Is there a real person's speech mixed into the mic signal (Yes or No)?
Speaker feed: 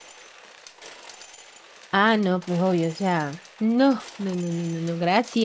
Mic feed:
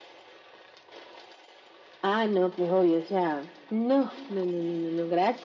No